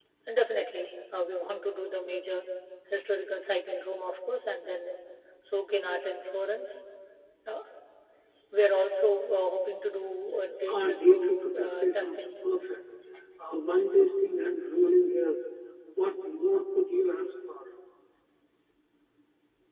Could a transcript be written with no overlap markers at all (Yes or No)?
No